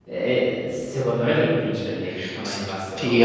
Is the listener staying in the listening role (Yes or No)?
No